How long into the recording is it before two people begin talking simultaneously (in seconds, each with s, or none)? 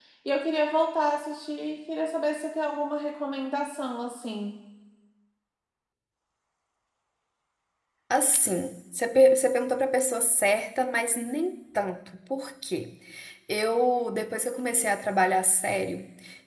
none